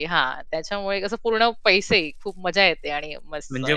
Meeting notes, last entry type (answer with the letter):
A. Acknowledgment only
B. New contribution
A